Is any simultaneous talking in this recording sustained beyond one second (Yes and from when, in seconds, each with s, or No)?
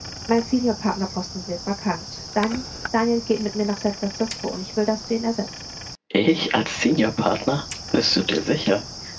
No